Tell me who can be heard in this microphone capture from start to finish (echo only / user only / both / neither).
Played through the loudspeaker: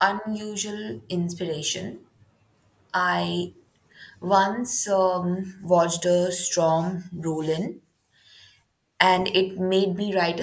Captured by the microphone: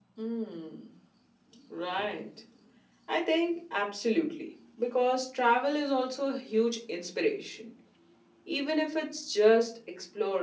user only